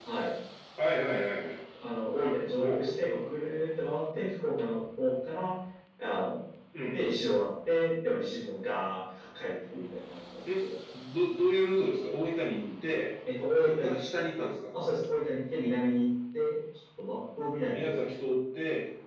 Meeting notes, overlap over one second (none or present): none